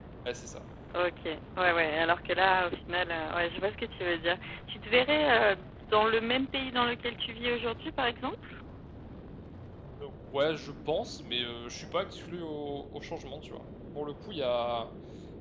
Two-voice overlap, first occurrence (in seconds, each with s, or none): none